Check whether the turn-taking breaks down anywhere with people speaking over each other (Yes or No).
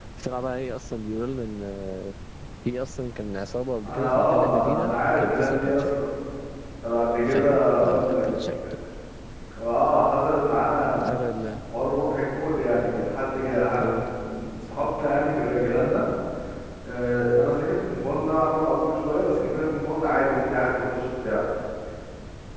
Yes